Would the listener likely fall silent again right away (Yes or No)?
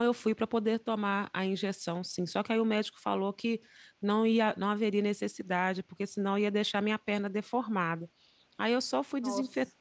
Yes